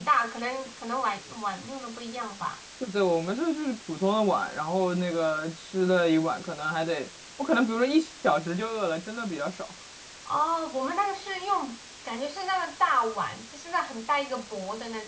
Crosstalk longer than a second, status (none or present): none